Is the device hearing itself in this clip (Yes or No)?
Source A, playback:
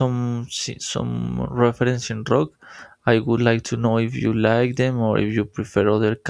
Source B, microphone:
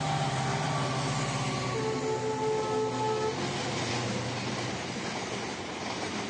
No